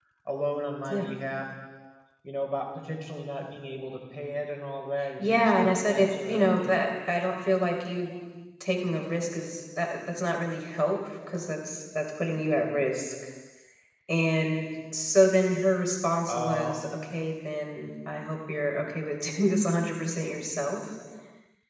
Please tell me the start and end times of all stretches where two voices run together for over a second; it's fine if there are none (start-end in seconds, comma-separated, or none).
5.2-6.6